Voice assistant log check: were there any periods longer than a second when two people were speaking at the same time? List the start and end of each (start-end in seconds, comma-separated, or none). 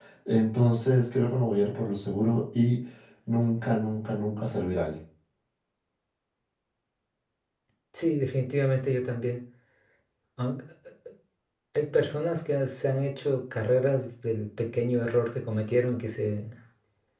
none